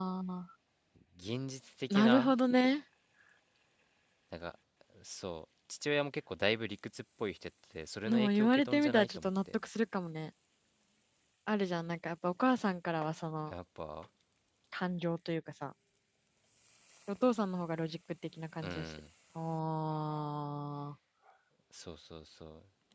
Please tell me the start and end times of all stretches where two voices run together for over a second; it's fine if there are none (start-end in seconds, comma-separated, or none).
8.1-9.5